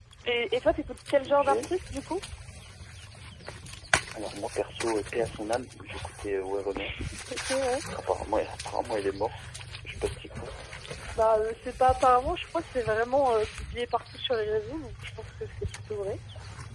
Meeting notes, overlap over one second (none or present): none